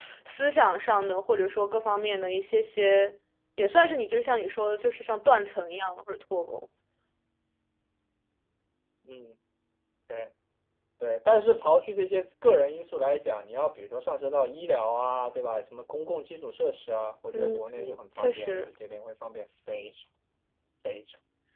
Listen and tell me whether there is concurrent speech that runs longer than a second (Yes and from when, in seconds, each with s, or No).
No